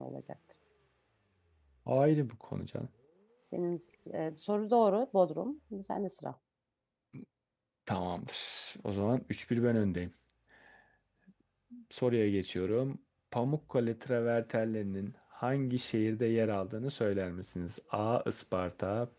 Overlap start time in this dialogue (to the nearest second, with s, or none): none